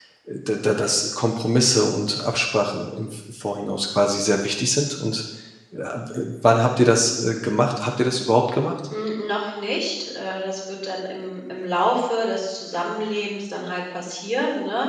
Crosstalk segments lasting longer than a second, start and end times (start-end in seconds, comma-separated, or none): none